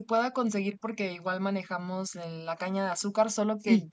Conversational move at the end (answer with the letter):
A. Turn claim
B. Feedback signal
B